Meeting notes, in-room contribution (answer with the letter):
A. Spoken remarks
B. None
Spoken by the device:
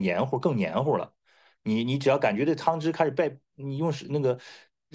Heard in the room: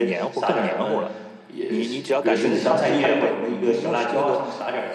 A